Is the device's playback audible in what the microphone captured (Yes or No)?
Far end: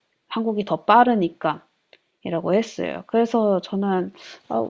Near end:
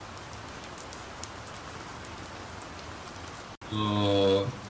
No